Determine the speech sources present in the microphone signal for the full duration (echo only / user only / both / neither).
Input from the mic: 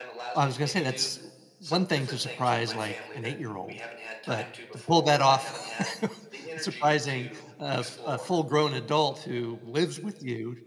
both